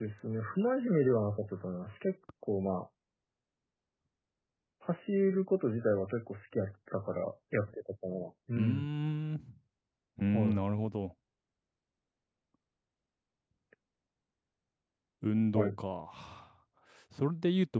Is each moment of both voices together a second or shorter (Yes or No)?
Yes